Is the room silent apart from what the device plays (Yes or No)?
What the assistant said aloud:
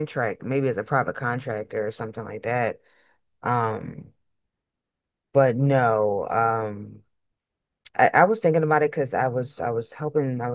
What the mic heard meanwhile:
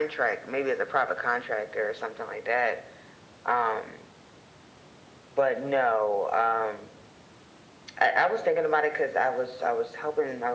Yes